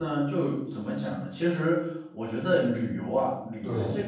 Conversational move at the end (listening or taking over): listening